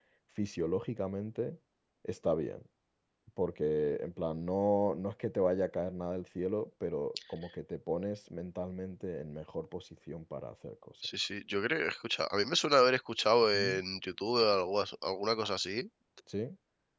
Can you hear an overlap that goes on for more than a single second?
No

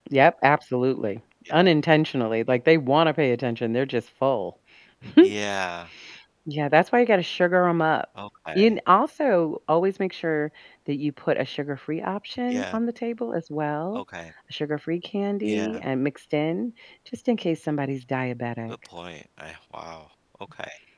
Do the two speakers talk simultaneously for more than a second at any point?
No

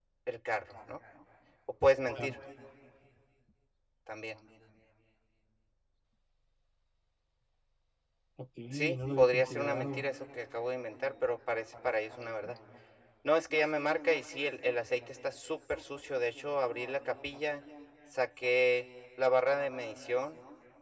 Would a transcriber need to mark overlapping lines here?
Yes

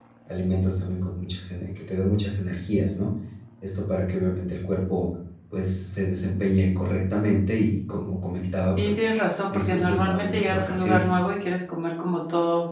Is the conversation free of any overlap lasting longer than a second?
No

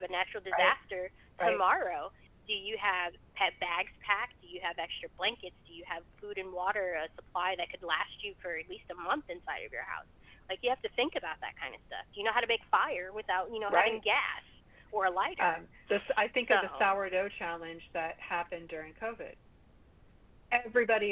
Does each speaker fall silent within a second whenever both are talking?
Yes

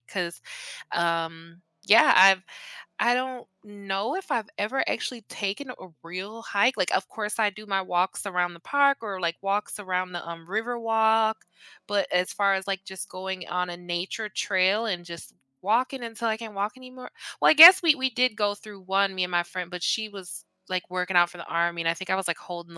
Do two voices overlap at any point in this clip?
No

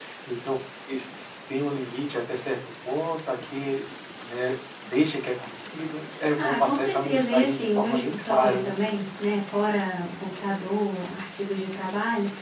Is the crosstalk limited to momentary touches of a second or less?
No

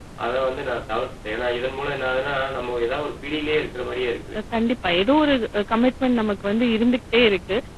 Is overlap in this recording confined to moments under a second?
Yes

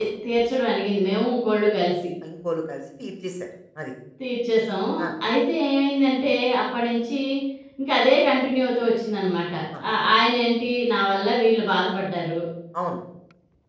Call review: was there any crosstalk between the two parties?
No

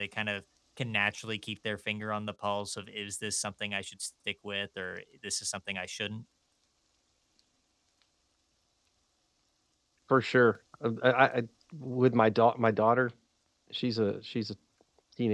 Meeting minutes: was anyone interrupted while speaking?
No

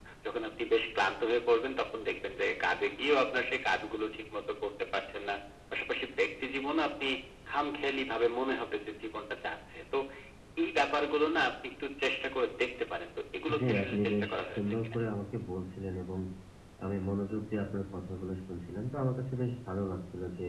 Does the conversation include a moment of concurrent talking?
Yes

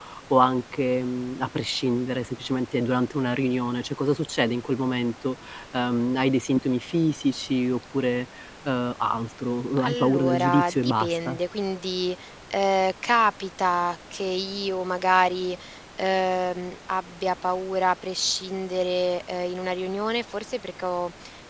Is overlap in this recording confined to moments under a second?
No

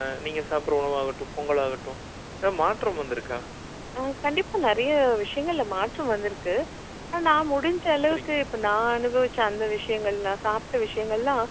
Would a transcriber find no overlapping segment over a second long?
Yes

